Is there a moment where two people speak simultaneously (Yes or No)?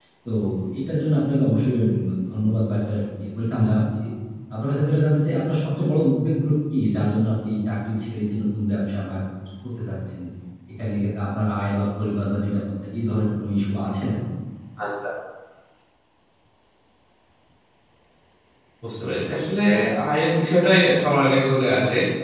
No